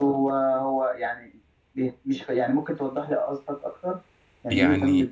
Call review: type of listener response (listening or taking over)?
taking over